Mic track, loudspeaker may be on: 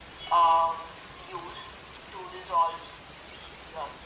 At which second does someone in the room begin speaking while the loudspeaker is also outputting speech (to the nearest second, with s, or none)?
none